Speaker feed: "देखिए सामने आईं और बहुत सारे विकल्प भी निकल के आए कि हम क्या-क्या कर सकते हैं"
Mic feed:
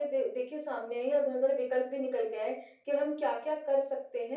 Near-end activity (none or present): none